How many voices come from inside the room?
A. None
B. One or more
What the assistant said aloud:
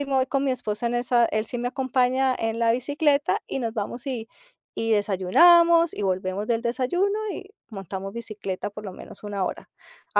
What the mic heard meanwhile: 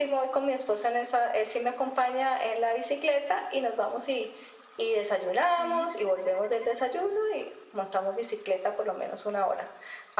B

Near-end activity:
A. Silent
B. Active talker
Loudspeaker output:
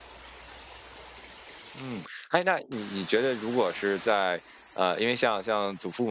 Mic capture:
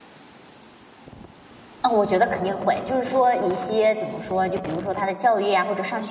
B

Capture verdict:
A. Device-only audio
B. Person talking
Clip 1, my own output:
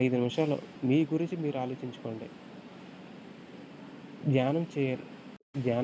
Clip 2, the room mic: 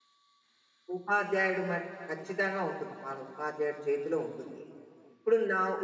B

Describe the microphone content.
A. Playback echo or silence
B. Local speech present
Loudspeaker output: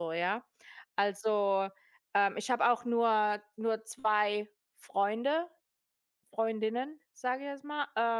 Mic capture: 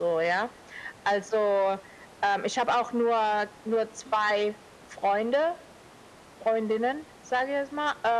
A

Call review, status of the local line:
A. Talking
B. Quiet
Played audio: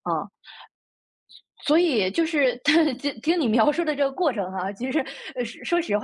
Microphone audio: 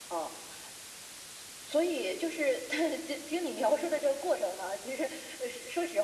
B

